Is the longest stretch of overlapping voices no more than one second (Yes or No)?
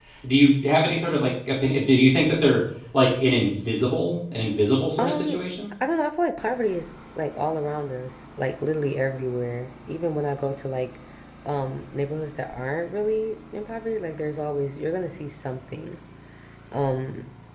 Yes